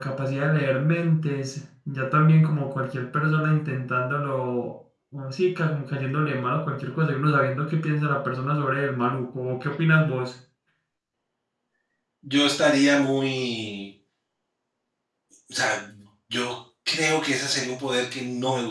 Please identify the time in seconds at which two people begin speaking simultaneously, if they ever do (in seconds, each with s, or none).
none